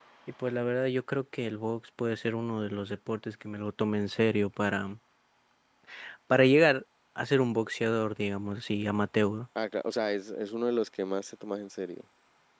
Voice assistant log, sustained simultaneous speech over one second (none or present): none